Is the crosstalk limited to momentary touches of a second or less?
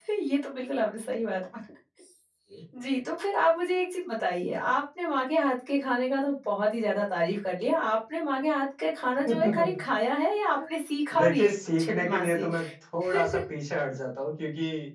No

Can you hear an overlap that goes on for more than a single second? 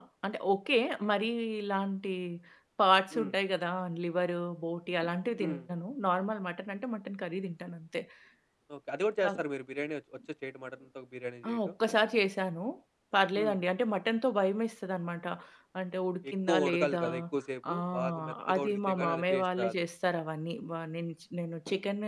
Yes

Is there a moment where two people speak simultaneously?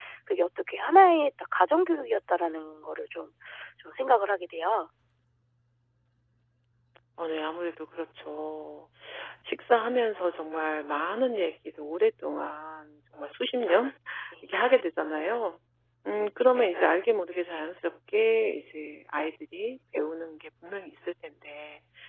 No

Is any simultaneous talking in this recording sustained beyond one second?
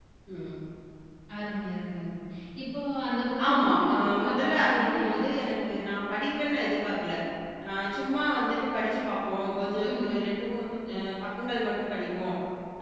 Yes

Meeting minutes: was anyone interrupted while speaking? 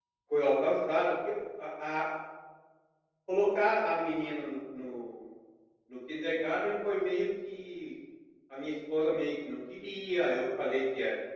No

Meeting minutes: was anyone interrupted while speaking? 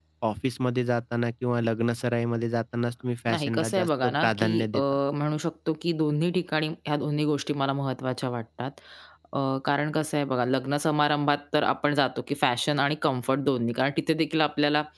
Yes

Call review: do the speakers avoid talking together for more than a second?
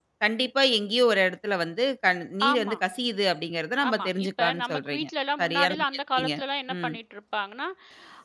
No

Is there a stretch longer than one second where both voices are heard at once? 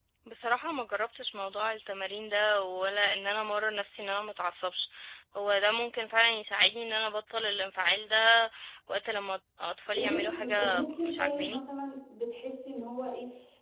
Yes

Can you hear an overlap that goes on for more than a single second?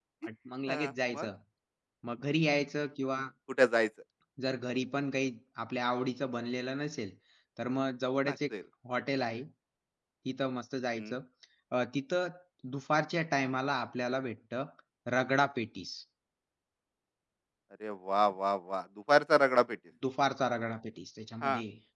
No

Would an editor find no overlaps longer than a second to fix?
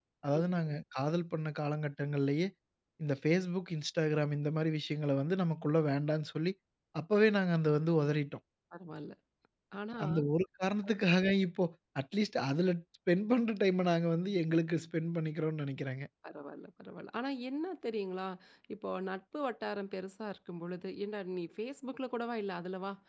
Yes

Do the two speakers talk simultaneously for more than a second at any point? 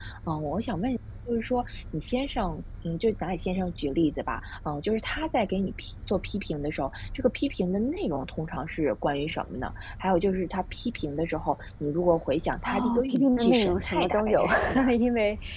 Yes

